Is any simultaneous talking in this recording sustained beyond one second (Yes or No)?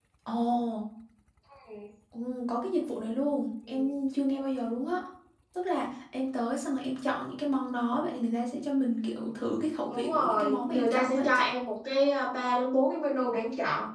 Yes